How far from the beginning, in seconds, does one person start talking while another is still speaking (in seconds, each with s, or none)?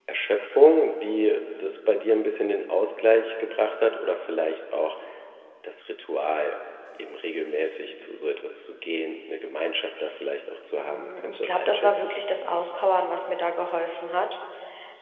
10.8 s